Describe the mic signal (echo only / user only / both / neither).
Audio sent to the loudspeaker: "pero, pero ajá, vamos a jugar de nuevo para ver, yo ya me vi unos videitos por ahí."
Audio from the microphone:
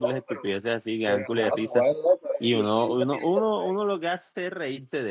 both